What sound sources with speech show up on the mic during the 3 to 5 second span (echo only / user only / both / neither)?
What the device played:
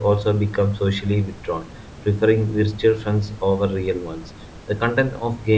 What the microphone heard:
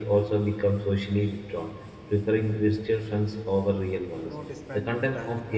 both